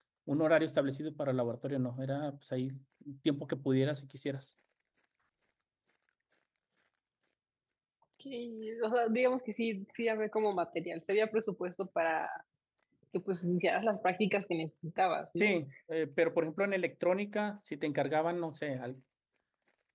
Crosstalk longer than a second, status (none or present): none